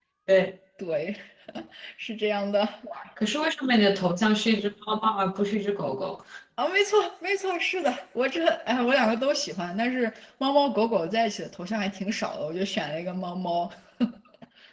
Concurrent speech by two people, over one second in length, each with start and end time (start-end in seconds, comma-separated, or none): none